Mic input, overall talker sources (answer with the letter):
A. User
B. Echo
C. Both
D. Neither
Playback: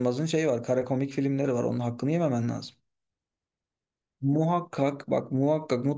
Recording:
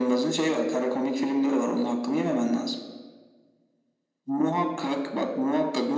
B